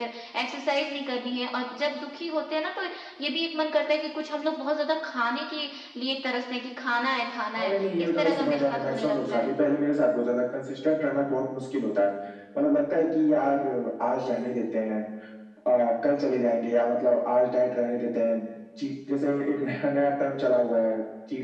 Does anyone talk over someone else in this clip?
Yes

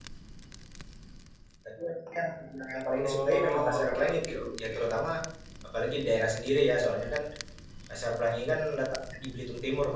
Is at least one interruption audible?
Yes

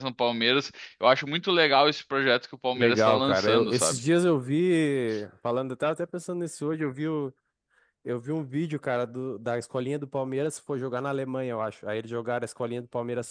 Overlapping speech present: Yes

